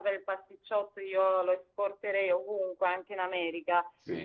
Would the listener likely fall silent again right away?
Yes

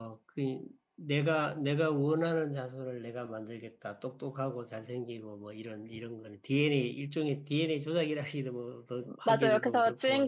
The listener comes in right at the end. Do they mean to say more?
Yes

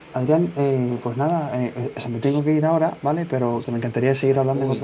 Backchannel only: No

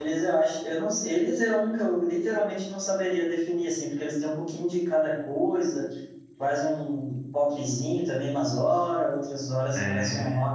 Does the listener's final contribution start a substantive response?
No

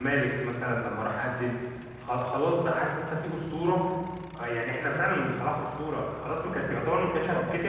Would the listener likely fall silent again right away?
Yes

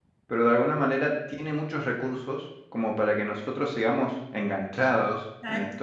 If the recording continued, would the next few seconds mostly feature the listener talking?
Yes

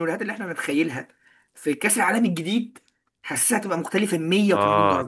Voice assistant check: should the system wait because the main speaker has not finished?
No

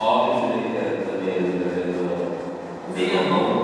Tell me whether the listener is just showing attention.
No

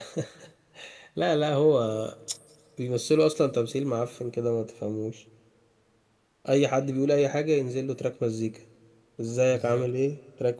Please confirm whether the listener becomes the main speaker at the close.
No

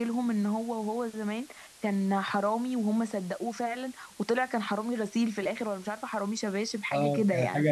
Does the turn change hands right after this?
Yes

